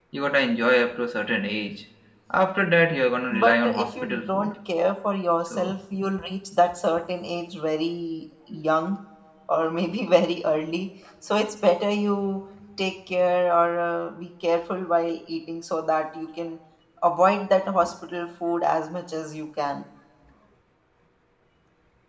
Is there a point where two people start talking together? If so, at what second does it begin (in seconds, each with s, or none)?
3.3 s